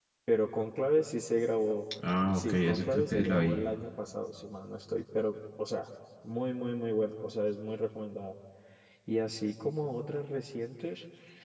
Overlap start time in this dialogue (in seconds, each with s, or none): 2.3 s